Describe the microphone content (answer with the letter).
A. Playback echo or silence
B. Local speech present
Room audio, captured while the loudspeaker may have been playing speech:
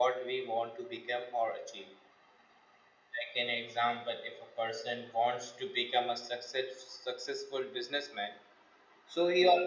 A